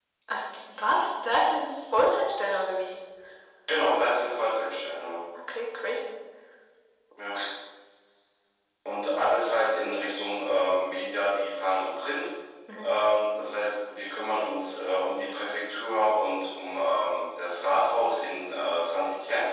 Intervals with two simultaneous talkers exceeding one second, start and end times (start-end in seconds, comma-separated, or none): none